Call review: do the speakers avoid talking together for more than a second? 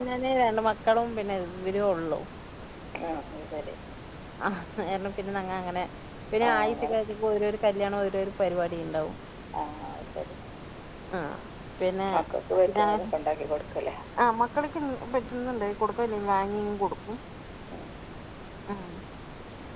Yes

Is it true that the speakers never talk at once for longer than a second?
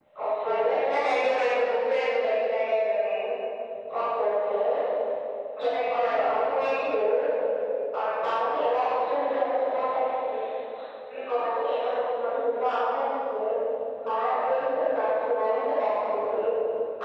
No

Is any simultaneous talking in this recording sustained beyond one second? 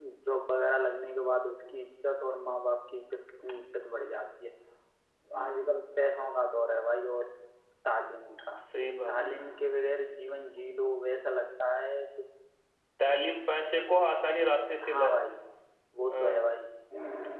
No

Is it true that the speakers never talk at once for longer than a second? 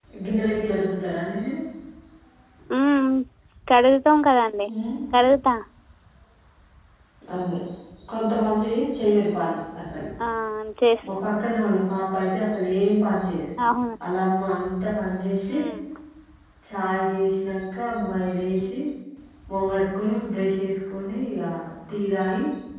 Yes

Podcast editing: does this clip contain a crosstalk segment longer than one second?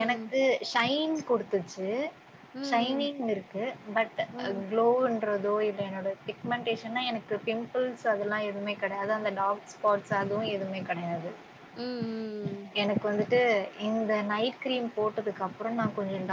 No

